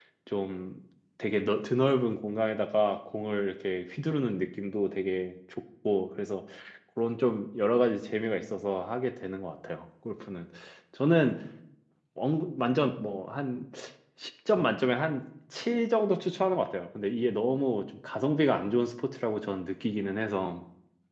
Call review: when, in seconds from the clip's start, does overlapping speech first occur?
none

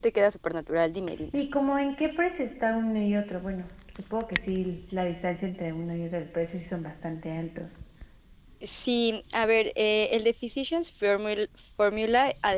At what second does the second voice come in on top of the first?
none

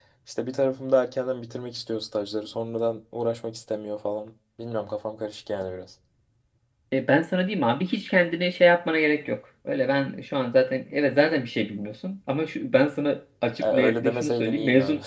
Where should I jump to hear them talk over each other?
14 s

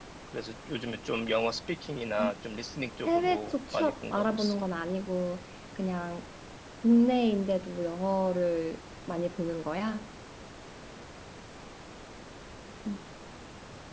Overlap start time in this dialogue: 3 s

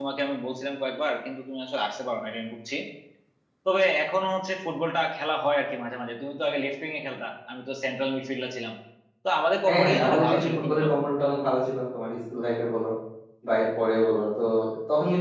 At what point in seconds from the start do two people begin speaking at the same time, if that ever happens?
10 s

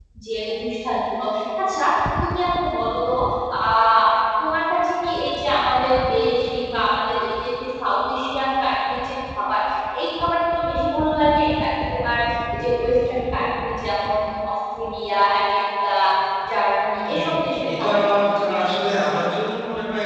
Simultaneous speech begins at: 17 s

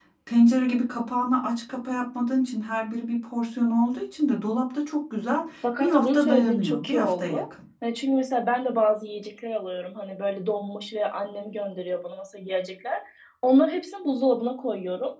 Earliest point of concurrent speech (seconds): 6 s

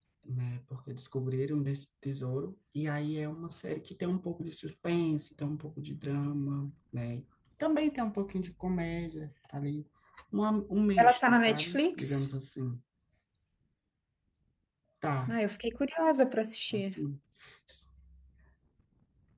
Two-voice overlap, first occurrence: 11 s

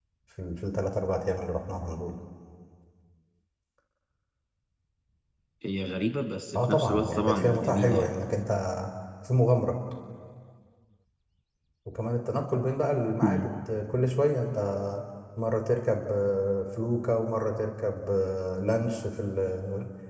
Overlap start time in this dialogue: 7 s

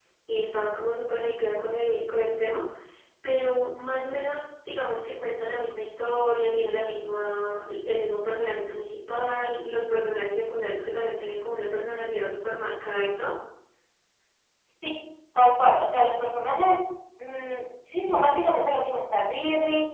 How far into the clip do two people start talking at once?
none

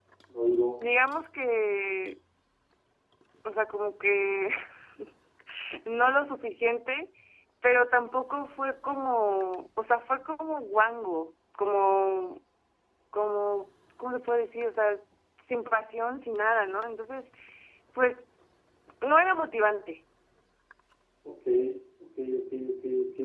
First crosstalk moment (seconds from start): none

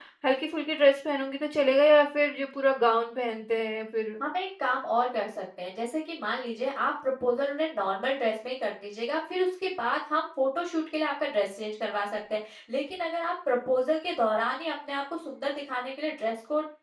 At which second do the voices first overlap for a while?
none

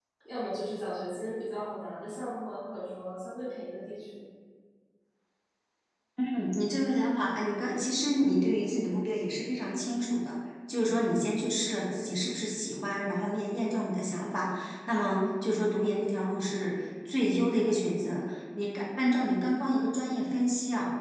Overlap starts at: none

